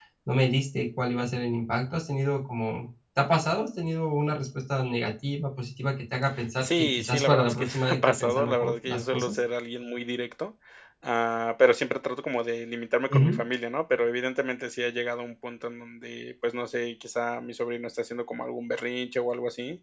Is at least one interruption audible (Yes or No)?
Yes